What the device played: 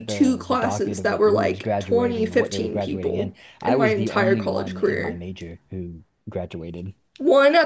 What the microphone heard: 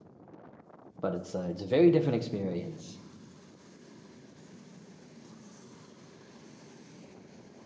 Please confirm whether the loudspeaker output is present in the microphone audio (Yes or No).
No